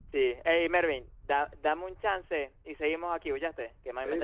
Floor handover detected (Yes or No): Yes